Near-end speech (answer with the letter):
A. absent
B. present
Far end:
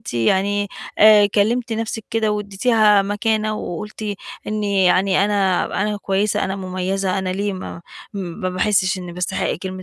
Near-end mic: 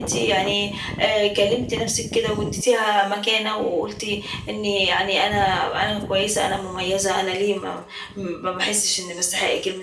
A